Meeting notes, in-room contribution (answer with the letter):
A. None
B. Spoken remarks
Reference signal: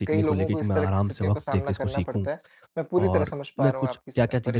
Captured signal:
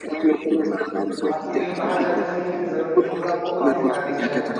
B